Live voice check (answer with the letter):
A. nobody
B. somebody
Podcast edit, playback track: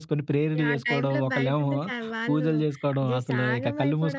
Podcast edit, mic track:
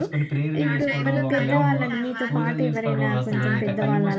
B